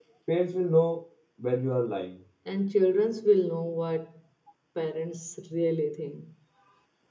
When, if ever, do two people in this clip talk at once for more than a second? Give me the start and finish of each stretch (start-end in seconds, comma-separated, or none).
none